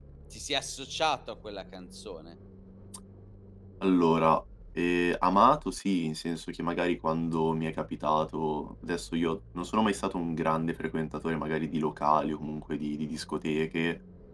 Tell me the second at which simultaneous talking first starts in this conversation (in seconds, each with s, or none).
none